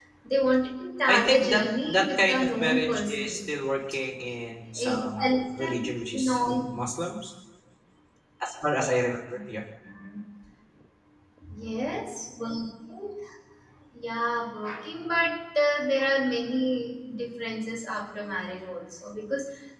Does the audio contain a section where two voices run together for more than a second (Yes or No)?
Yes